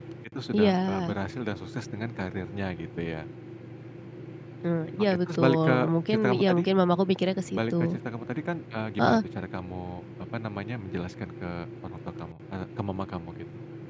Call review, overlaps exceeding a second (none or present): present